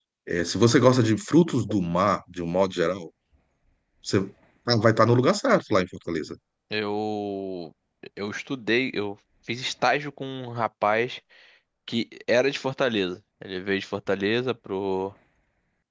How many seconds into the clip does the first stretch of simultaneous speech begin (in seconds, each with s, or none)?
none